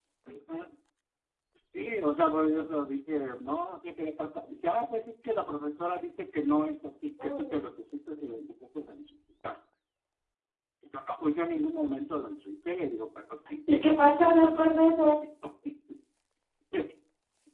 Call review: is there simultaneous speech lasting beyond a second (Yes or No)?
Yes